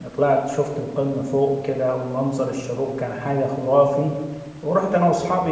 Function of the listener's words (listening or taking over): listening